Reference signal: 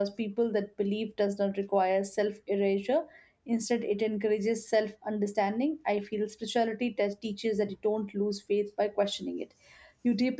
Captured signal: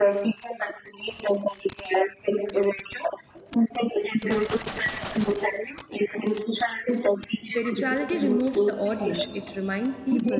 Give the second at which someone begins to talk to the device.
7.4 s

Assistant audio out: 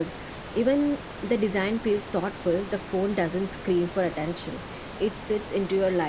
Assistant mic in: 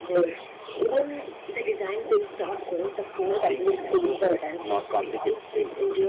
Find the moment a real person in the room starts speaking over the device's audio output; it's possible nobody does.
3.4 s

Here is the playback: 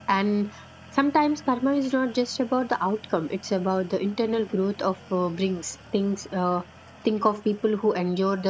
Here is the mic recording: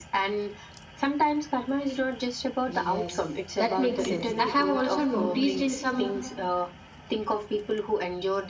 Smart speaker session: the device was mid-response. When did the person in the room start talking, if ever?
2.7 s

